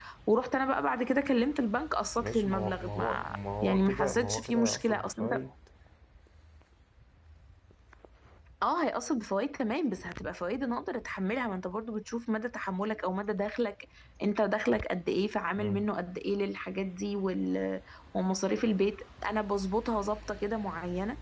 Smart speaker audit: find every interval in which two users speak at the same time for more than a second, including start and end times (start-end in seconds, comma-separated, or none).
2.1-5.4